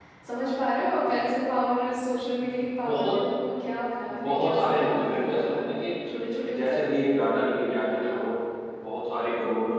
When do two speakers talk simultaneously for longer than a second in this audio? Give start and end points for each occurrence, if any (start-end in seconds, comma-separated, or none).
4.2-5.7